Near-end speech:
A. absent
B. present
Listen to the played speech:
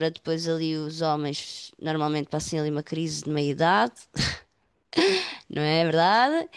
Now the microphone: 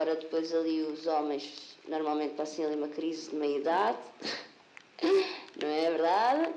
A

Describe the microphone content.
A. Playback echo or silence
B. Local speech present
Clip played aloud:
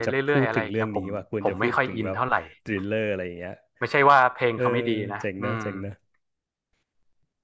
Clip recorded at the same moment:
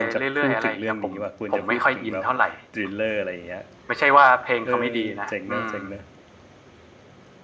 A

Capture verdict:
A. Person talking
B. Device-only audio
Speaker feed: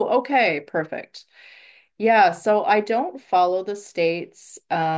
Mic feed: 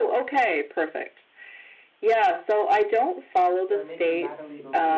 A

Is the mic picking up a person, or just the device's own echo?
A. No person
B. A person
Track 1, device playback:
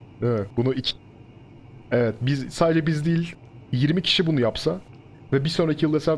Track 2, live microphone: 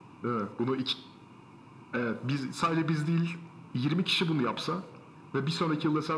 A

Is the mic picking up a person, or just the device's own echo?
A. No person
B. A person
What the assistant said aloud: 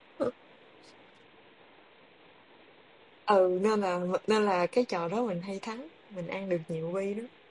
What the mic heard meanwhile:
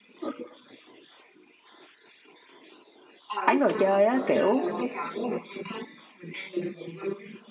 B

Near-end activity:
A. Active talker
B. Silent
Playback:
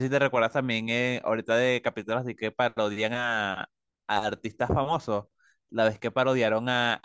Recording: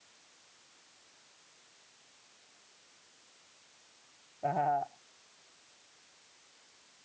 A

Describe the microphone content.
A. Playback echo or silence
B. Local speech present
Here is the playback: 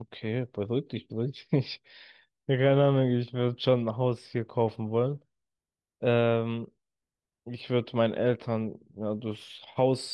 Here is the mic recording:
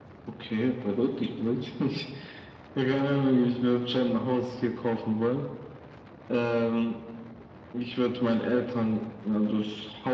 A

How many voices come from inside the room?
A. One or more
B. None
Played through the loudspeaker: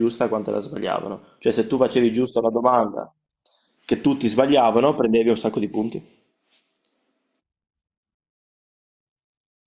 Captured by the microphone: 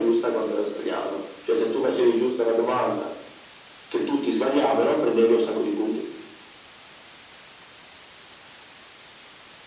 B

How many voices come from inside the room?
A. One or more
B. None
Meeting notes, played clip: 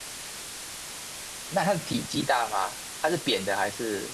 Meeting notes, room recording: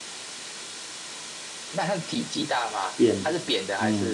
A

